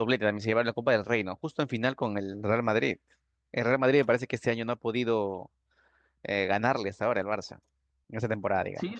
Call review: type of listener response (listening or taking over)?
taking over